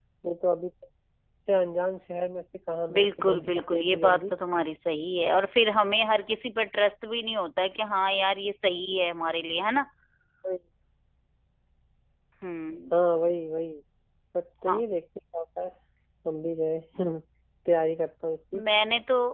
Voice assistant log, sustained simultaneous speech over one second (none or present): present